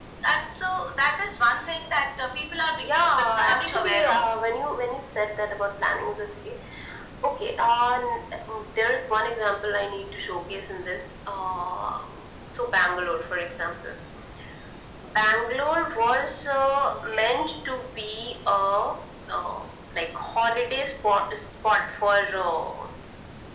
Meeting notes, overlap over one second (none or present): present